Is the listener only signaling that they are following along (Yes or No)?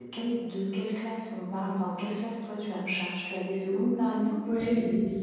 No